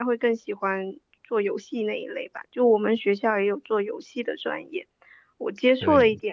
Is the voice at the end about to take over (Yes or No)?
No